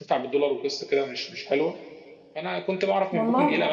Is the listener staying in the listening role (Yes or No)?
Yes